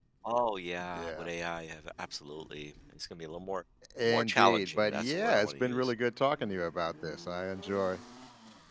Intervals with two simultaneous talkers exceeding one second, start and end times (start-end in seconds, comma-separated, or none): 4.0-5.9